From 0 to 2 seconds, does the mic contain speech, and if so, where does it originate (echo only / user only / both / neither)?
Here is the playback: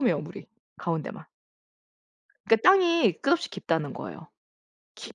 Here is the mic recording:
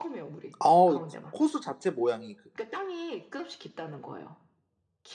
both